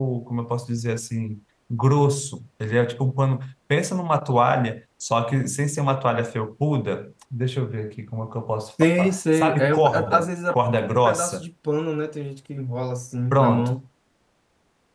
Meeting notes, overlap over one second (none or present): present